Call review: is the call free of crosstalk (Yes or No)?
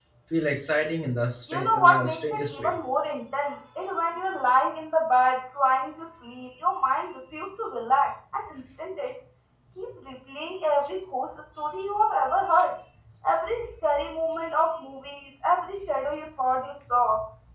No